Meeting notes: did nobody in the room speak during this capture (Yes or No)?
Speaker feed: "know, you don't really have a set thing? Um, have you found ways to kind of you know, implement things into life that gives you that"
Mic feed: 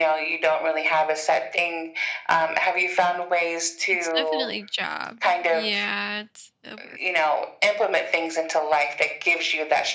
No